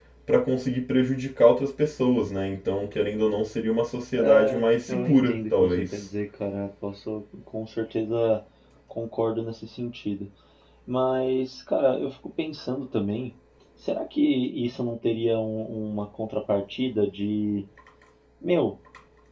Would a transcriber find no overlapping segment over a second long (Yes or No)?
No